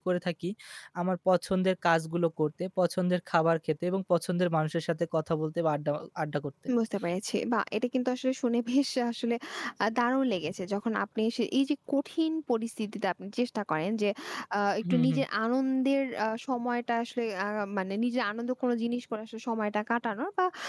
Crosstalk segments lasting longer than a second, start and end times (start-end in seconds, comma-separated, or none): none